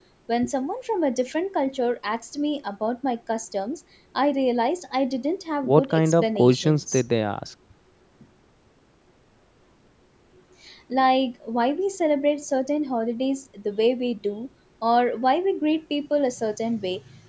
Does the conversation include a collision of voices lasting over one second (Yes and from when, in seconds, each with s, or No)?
Yes, from 5.6 s